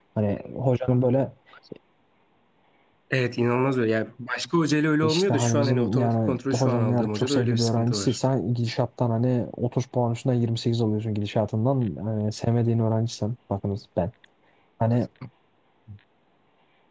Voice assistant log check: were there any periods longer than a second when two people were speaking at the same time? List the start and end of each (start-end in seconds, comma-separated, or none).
5.0-8.2